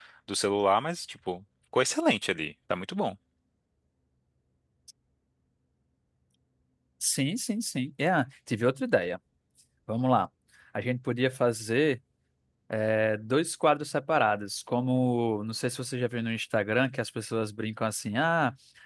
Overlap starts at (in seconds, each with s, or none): none